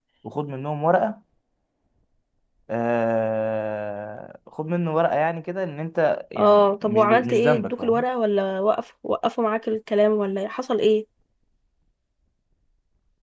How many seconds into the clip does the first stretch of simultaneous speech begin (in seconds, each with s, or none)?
6.3 s